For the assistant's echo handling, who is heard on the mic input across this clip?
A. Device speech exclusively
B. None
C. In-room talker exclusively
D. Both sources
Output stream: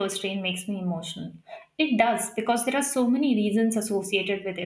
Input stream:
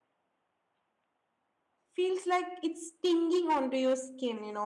C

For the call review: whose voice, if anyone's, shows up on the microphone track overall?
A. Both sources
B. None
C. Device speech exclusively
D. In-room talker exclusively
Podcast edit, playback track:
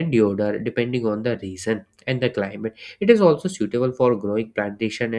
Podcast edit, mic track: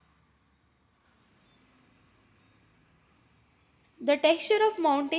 D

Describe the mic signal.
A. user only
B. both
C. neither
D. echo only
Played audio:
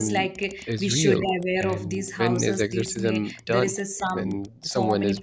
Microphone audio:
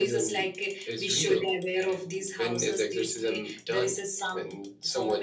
D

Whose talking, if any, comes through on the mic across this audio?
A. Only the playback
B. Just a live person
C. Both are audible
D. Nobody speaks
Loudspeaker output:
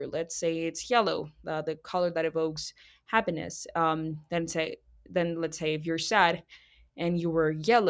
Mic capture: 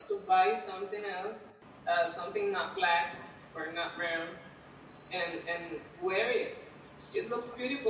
B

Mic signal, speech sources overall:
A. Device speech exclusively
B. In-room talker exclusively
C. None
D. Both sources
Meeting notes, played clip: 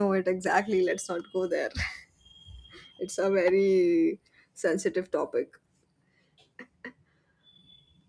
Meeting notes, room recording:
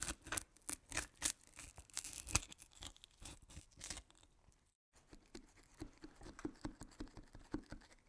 C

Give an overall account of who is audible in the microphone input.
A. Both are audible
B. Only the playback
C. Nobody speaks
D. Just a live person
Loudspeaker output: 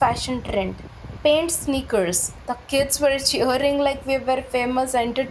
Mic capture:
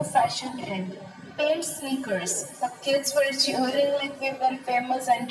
B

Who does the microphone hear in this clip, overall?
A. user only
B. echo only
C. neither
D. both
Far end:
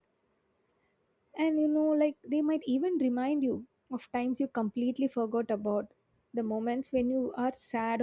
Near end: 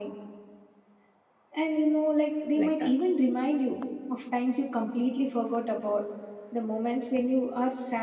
D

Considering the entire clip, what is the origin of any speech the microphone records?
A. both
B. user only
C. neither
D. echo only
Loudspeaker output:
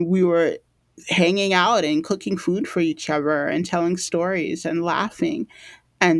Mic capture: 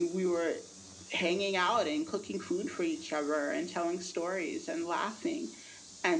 D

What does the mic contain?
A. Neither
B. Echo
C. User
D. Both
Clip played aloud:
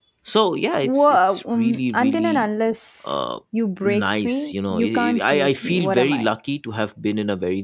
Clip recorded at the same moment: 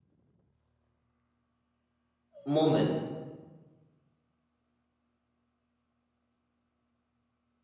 C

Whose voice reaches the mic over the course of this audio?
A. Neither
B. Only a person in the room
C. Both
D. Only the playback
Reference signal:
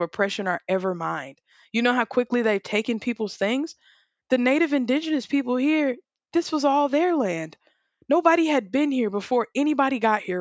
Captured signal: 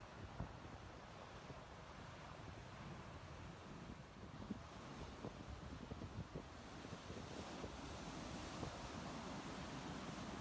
A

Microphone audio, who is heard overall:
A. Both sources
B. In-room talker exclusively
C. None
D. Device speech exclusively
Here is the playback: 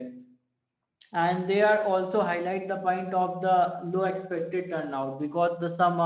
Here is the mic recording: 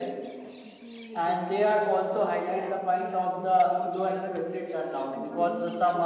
A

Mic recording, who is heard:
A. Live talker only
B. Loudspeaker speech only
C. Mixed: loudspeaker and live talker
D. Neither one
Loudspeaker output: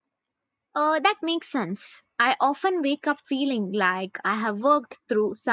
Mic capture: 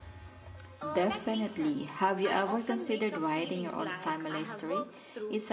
C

